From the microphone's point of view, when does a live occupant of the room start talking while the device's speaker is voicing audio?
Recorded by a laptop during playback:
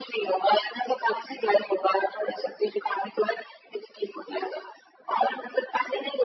none

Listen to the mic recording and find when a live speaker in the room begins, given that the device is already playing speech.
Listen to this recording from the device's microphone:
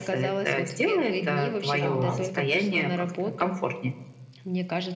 1.8 s

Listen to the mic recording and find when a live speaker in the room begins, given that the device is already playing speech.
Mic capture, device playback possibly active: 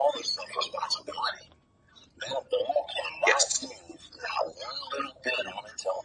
3.3 s

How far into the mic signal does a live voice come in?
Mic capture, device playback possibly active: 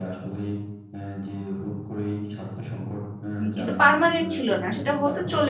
3.4 s

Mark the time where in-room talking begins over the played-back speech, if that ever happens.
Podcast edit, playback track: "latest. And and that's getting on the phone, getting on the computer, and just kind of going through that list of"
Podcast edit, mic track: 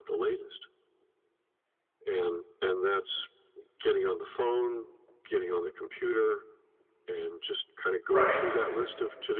8.1 s

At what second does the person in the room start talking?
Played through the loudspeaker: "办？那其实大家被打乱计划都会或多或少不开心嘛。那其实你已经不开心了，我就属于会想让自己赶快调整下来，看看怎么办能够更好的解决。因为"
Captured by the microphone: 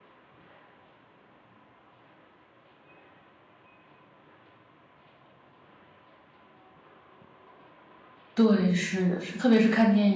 8.3 s

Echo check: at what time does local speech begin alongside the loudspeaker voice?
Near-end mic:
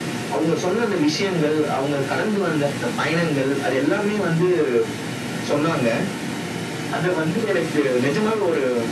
none

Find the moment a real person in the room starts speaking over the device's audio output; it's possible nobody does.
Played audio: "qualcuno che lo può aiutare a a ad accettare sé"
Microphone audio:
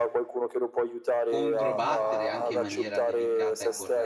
1.2 s

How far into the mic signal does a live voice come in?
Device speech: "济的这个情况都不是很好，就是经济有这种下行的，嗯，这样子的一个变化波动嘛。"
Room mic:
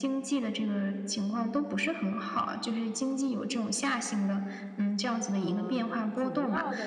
5.3 s

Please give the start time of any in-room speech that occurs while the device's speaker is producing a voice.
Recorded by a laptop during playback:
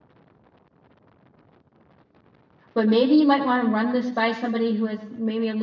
2.7 s

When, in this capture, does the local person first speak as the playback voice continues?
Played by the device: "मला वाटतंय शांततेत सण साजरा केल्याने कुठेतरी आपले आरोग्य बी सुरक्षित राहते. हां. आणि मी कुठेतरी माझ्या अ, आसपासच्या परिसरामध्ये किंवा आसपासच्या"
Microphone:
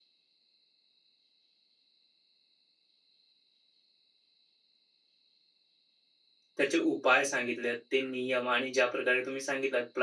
6.6 s

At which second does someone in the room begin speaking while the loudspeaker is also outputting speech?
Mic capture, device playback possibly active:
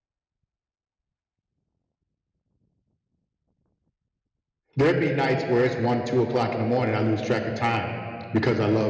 4.8 s

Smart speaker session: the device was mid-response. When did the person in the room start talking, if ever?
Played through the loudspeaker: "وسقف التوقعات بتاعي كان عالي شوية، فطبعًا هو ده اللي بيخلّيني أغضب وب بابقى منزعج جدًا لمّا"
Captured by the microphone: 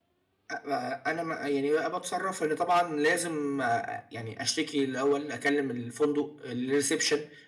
0.5 s

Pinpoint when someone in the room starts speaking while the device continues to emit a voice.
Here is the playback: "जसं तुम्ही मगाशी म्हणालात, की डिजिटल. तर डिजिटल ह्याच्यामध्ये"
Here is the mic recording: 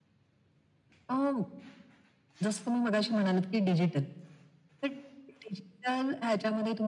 none

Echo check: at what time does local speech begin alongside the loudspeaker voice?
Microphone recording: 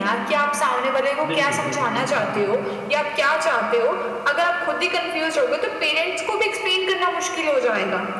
1.3 s

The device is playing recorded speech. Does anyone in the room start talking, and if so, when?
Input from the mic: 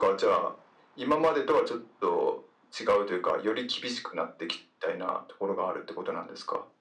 none

